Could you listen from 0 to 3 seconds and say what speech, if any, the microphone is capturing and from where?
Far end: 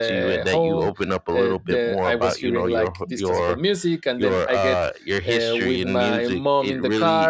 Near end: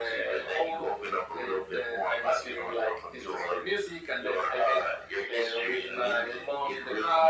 echo only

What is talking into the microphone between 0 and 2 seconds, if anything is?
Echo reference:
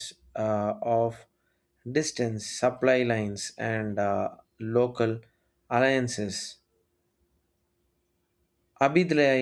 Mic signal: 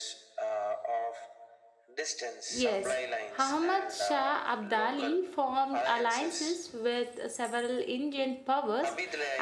echo only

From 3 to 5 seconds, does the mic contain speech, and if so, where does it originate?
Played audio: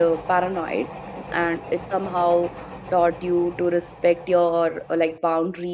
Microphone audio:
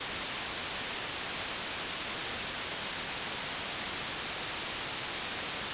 neither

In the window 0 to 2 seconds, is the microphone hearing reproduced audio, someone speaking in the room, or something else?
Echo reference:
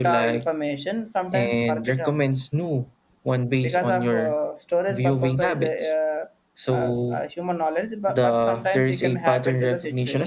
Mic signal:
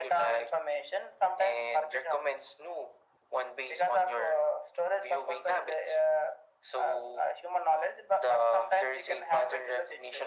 echo only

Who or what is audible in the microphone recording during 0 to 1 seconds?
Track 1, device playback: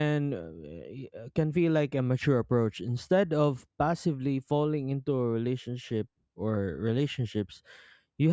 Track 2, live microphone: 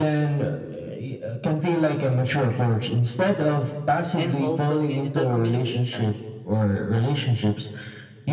echo only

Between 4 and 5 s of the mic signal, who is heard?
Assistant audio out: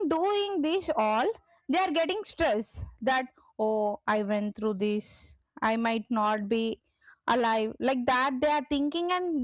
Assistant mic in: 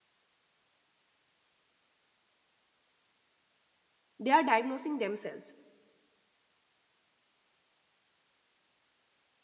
user only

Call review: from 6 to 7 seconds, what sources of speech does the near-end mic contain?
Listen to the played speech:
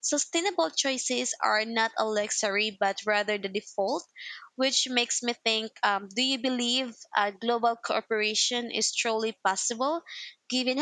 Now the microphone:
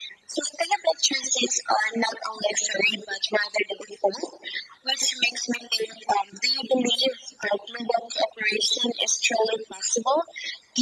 echo only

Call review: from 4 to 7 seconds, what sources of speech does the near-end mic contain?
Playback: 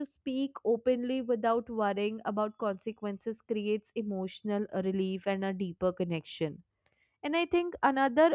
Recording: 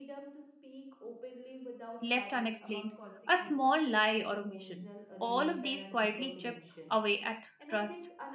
both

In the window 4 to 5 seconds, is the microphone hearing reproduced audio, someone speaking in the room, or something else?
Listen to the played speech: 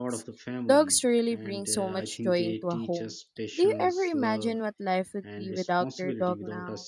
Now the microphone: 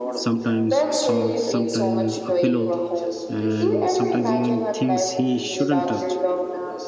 both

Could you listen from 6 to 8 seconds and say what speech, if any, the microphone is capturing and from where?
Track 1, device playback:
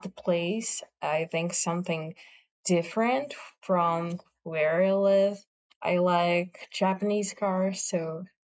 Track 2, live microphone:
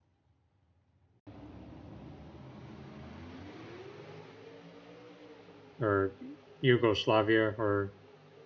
user only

